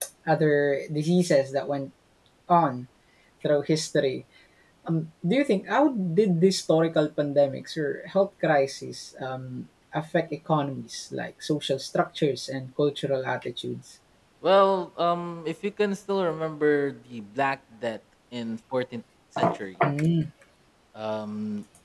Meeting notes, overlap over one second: none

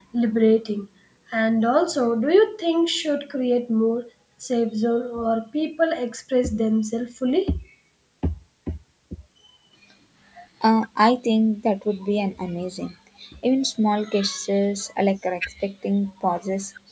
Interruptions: none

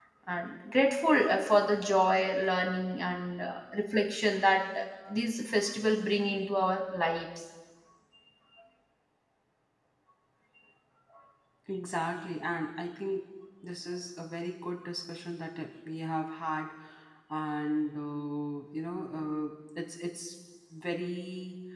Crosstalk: none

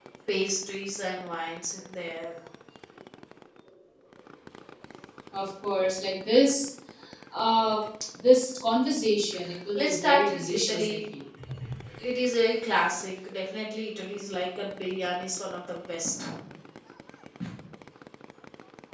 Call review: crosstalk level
present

